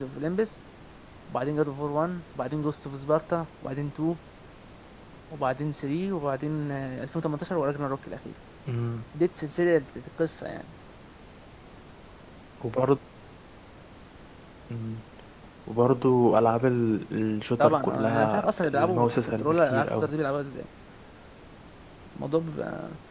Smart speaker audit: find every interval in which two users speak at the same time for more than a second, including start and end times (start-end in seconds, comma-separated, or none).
17.6-20.1